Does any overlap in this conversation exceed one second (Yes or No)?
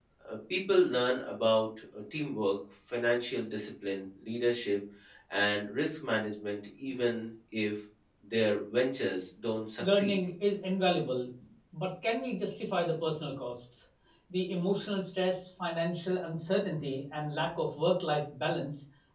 No